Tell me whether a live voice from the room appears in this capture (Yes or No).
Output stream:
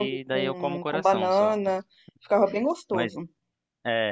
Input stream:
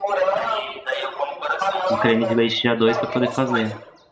Yes